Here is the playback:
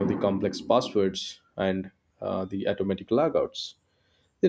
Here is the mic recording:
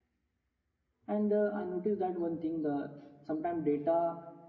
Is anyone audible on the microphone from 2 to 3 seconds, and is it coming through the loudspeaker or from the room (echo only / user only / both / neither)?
user only